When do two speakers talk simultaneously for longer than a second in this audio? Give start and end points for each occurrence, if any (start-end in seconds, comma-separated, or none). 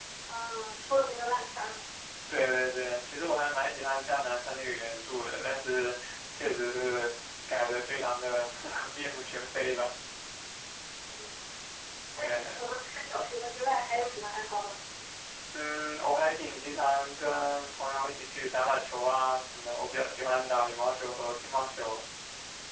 none